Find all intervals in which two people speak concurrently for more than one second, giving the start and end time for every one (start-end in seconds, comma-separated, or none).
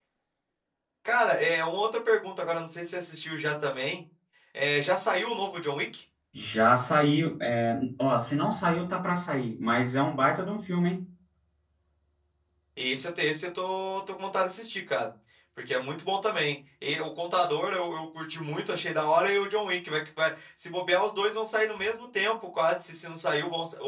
none